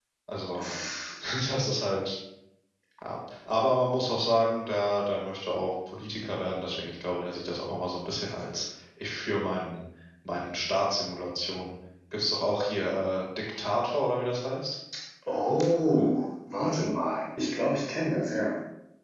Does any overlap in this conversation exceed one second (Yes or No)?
No